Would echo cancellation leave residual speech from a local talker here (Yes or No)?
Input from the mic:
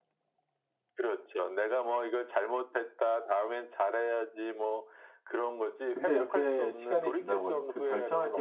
Yes